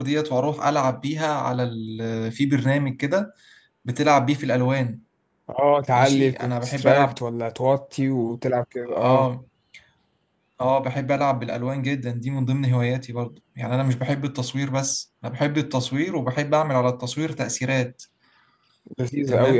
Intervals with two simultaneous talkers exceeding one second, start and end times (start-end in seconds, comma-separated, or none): 5.9-7.2